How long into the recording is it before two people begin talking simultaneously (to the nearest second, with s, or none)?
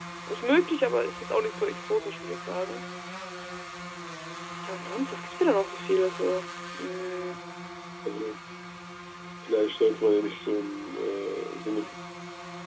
none